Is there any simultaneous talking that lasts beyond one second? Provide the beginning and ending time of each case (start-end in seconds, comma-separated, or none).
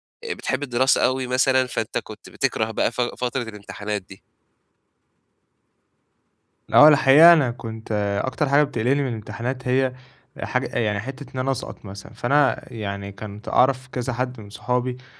none